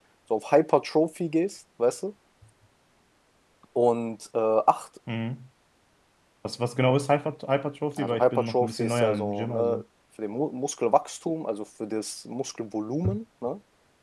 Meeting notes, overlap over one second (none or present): present